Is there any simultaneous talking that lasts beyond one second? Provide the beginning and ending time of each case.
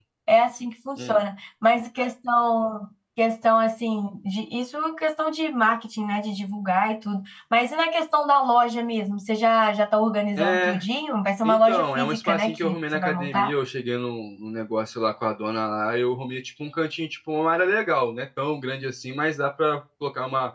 11.4-13.5

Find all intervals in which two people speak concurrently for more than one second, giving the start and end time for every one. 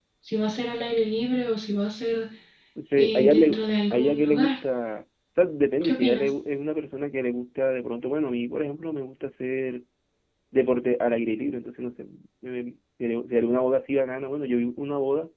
3.0-4.5

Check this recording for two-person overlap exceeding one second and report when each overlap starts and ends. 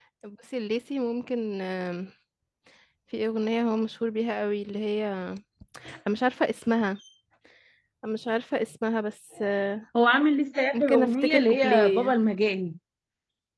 10.7-12.1

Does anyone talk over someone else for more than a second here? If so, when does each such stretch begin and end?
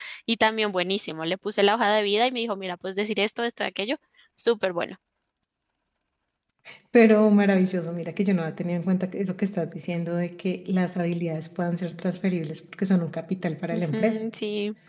none

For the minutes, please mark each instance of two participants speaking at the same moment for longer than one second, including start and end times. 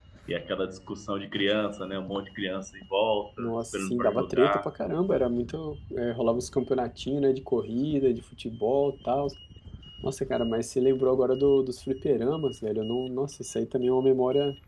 3.4-4.7

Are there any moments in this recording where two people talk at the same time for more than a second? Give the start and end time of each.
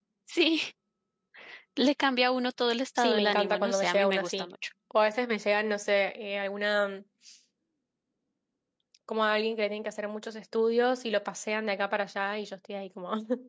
3.0-4.5

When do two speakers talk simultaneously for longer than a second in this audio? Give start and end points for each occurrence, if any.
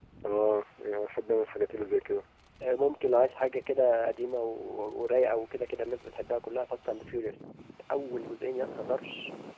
none

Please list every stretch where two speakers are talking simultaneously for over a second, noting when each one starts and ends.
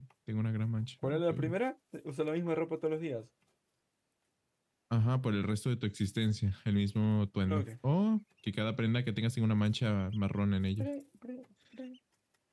none

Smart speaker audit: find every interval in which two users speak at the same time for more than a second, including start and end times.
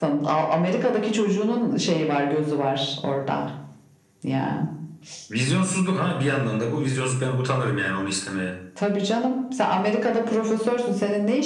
none

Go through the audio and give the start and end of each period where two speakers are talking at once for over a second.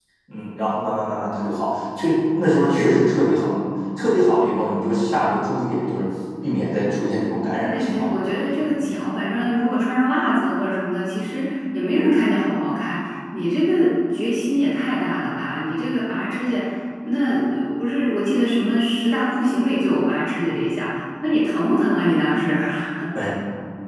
7.6-9.0

